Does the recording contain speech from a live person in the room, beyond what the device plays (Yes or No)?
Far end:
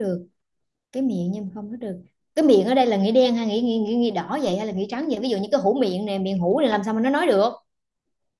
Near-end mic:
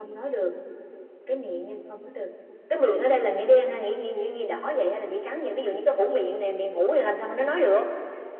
No